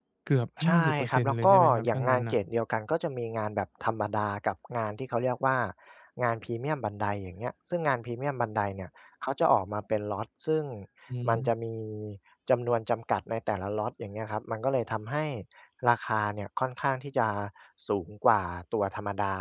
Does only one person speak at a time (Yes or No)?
No